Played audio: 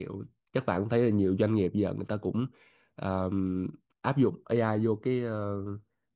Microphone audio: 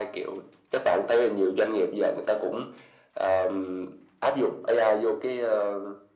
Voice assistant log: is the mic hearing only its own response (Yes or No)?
Yes